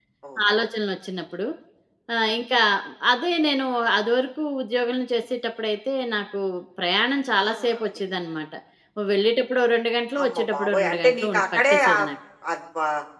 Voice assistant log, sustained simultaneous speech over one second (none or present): present